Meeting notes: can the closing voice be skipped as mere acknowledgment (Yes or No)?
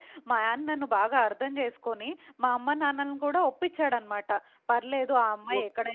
Yes